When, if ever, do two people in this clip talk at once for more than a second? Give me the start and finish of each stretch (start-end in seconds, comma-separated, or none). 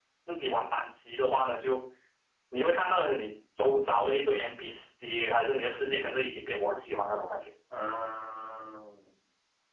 none